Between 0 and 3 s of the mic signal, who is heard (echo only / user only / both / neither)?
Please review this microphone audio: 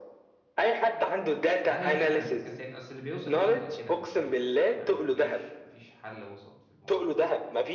both